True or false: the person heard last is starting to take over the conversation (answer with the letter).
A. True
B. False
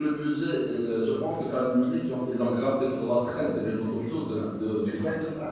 A